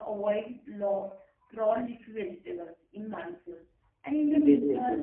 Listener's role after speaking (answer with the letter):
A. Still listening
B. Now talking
A